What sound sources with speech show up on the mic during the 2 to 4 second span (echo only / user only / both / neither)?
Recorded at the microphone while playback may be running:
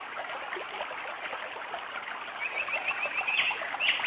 neither